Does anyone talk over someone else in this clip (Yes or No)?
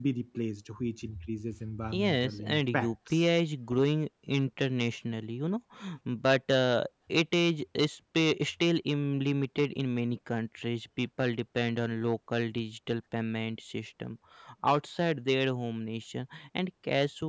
Yes